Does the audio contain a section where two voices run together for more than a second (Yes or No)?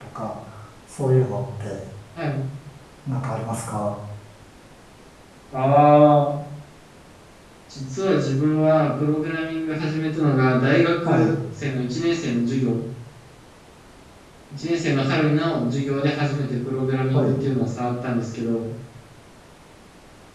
No